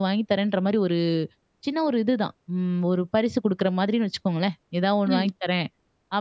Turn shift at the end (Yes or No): No